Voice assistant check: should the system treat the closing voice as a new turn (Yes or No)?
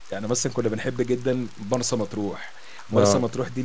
No